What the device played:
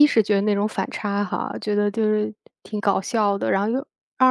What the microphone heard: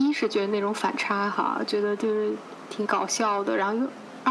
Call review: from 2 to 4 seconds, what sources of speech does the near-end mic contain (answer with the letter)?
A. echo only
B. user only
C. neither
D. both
A